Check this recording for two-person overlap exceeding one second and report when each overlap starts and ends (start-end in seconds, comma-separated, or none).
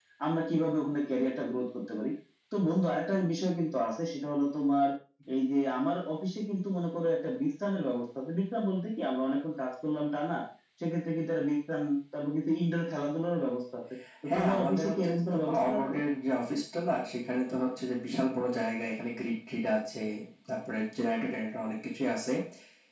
14.3-15.9